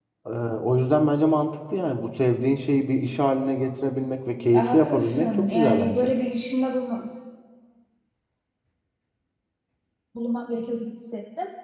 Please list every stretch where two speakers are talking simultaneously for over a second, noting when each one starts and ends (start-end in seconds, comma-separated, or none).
4.5-6.1